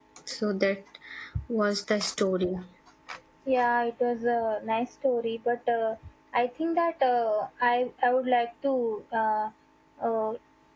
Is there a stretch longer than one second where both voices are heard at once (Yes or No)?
No